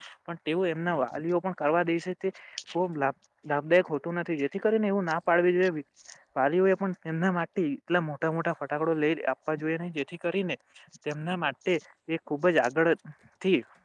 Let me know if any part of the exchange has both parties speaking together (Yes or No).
No